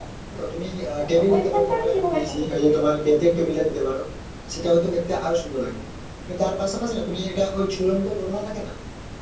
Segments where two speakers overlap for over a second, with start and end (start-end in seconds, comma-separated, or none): 1.1-3.1